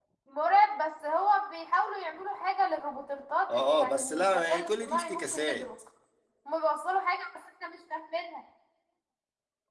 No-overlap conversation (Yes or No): No